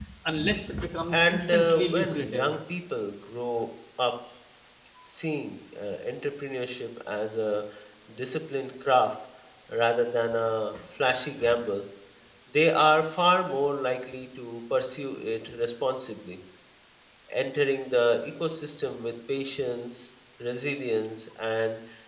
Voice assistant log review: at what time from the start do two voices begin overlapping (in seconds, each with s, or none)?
1.1 s